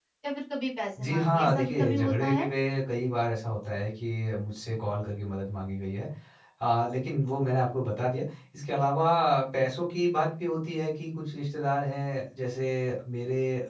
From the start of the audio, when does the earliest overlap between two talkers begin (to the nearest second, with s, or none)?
1 s